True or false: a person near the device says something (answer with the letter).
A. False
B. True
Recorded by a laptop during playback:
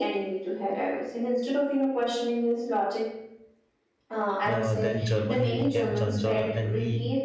B